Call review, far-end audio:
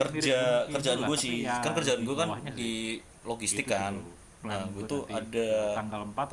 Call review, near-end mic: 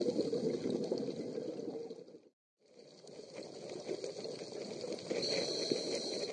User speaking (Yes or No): No